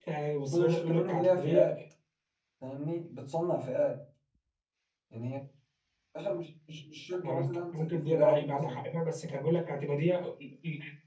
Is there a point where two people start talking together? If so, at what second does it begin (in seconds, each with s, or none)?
0.5 s